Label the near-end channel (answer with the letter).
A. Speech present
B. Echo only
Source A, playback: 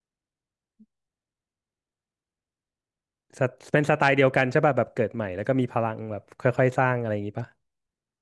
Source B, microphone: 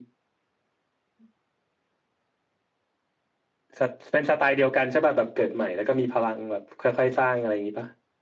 B